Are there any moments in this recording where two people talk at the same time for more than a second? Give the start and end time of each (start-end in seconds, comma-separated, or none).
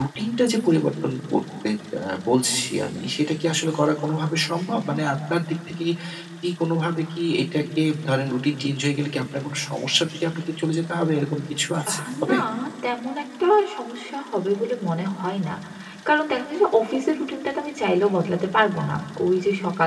none